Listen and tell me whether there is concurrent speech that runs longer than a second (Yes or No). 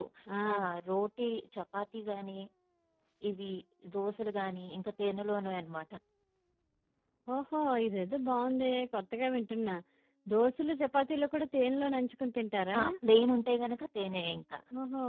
No